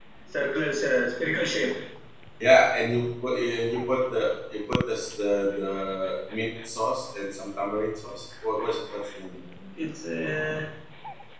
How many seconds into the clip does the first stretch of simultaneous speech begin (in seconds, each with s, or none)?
none